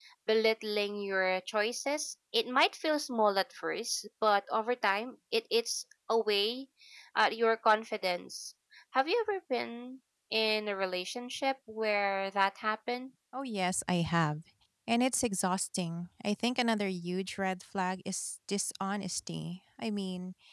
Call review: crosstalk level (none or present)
none